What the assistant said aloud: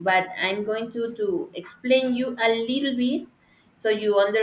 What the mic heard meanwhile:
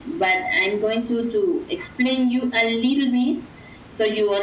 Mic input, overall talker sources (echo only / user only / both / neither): echo only